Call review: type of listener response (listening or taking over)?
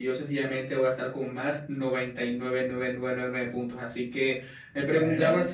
listening